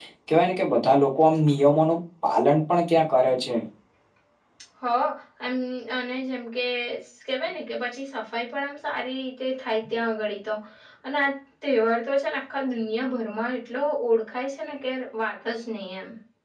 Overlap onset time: none

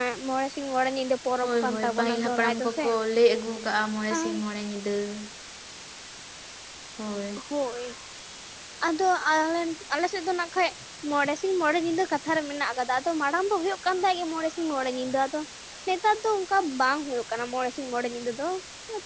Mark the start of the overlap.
1.4 s

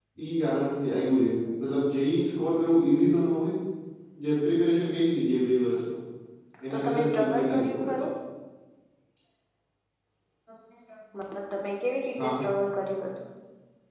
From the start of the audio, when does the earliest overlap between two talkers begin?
6.7 s

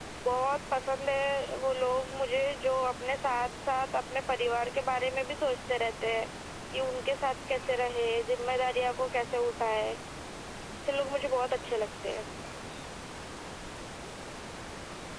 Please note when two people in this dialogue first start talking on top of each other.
none

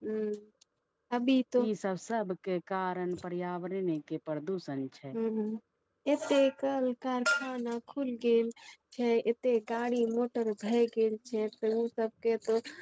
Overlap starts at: none

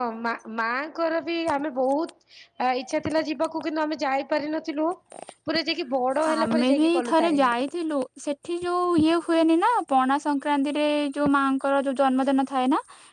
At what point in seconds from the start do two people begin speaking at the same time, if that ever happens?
6.3 s

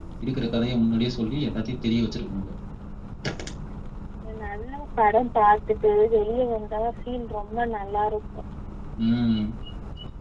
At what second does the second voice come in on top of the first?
none

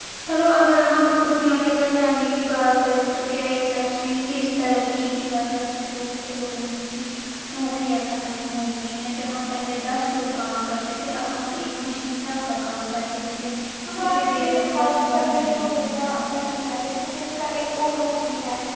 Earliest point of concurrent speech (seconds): 14.0 s

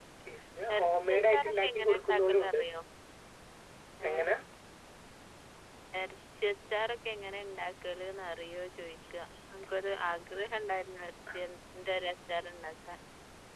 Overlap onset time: 0.8 s

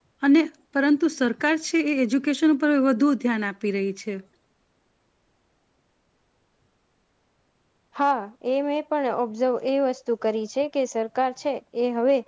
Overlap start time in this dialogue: none

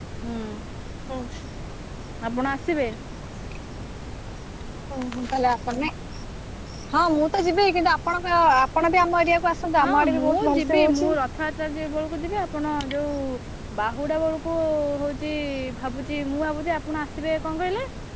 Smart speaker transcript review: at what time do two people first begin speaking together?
9.8 s

